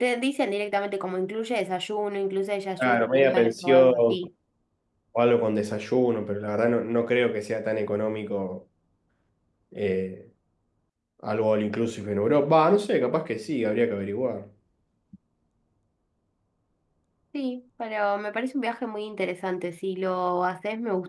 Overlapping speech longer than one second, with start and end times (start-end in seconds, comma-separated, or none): 2.8-4.2